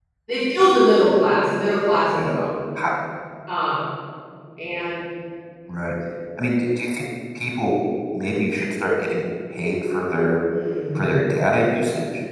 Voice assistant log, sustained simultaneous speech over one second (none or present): none